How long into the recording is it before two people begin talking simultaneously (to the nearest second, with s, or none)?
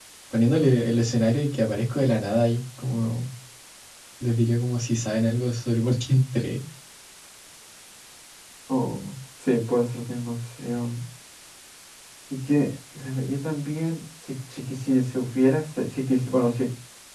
none